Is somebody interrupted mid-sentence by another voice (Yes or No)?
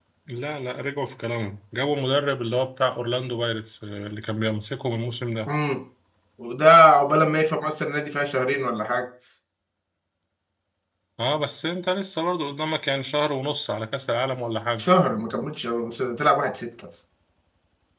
No